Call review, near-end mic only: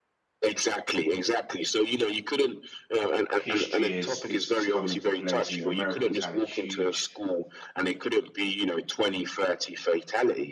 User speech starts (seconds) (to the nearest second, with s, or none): 3 s